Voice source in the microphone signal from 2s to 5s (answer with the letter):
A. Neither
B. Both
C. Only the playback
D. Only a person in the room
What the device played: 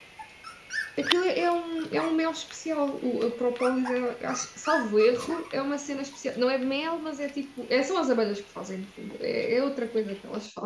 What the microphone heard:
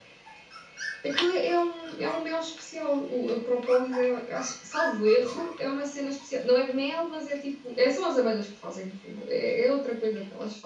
C